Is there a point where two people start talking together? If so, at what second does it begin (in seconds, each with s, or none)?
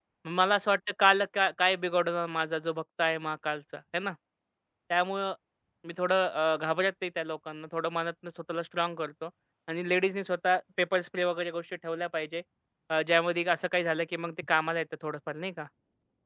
none